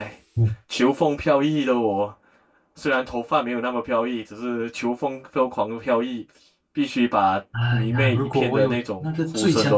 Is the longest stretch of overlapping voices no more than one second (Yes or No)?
No